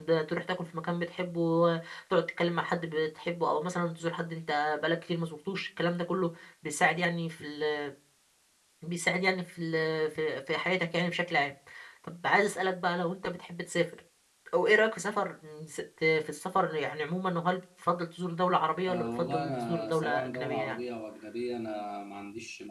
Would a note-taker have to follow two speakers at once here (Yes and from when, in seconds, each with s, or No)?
Yes, from 18.9 s